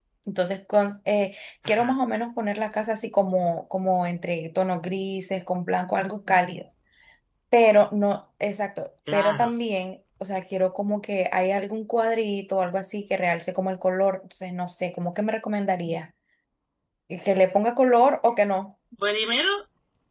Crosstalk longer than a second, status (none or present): none